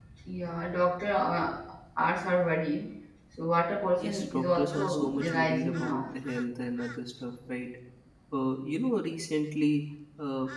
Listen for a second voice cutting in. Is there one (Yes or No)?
Yes